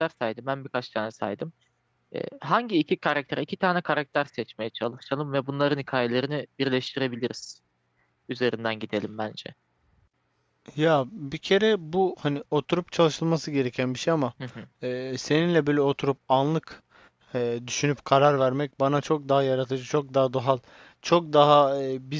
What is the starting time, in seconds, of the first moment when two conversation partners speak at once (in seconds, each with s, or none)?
none